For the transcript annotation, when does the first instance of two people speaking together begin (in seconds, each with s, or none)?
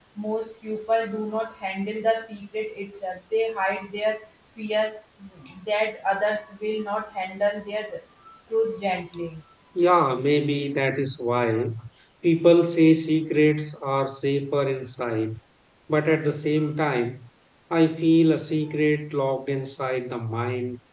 none